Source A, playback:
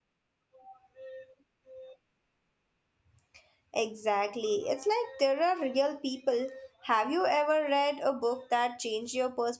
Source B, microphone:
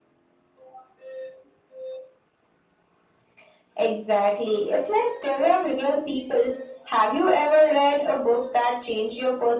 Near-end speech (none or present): none